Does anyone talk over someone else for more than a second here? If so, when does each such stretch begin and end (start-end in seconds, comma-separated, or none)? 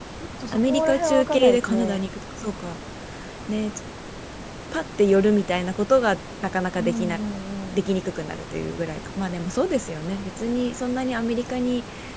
0.5-2.1